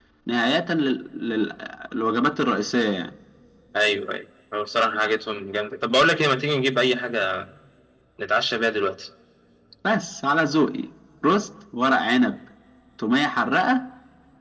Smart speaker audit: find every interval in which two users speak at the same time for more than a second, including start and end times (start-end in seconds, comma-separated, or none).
none